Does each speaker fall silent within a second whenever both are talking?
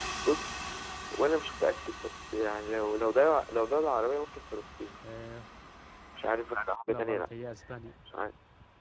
Yes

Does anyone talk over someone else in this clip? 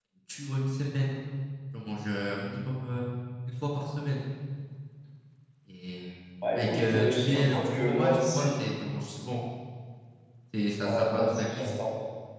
Yes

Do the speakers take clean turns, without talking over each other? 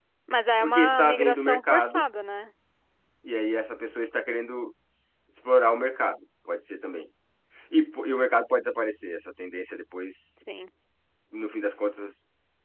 No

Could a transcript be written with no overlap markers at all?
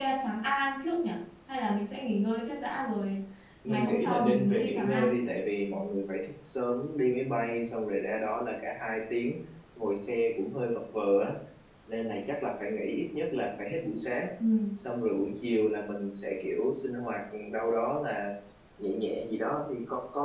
No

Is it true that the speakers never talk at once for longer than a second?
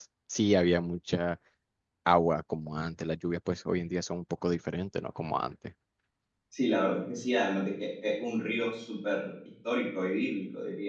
Yes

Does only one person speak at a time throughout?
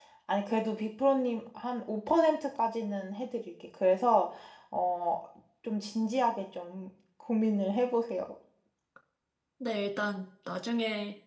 Yes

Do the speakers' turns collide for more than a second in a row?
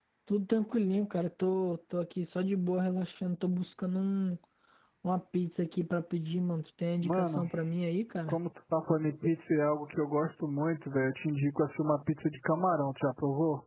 No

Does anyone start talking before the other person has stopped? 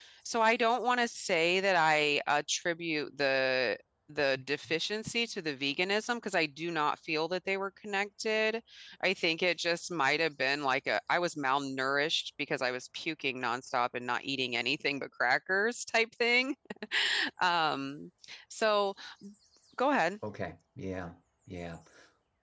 No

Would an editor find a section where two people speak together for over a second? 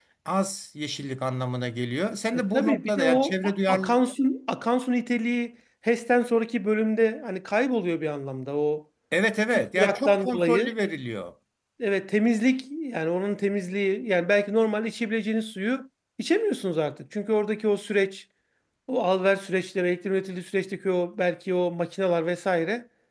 Yes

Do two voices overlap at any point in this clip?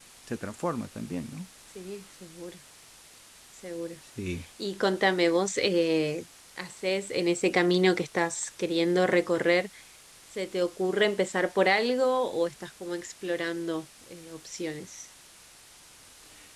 No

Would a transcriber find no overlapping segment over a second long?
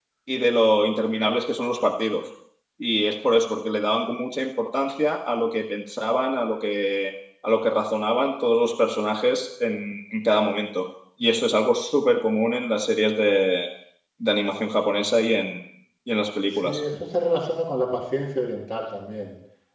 Yes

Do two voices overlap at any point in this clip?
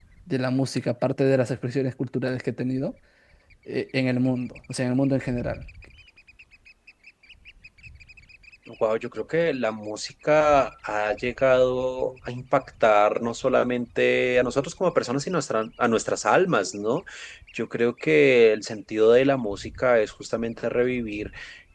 No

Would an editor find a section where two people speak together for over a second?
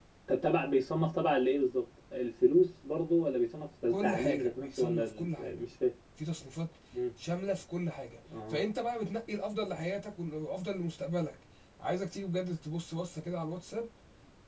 Yes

